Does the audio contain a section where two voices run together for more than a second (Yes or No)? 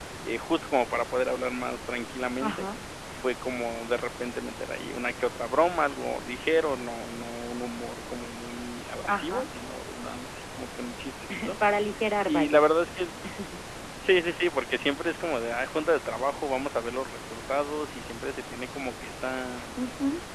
No